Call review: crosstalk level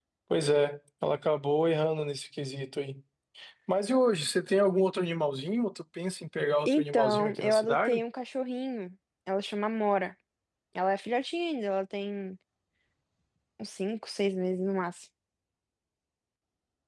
present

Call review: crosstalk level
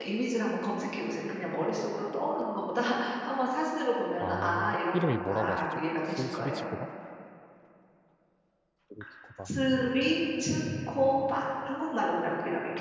present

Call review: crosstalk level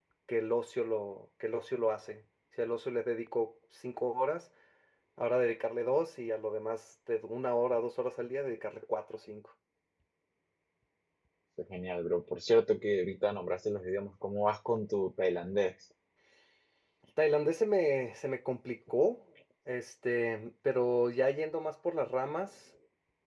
none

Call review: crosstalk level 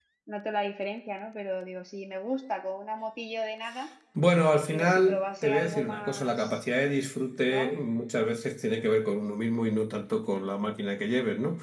present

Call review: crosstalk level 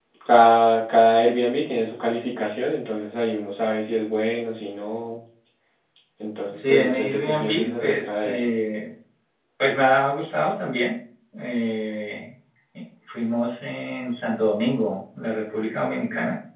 present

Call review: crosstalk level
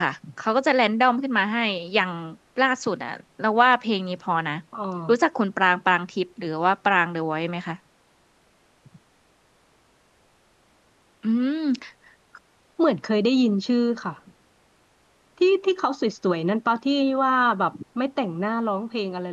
none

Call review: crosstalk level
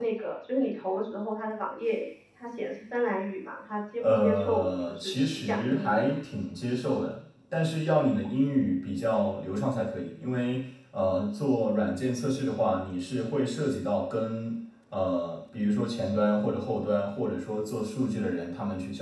present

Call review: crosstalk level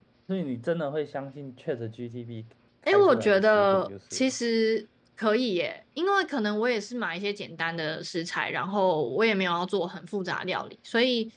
present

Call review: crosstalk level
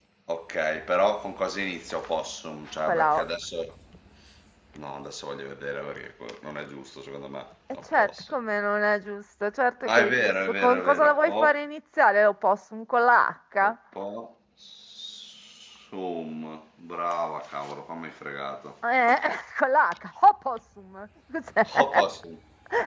present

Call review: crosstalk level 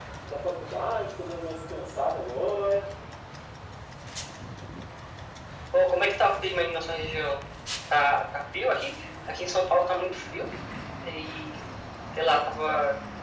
none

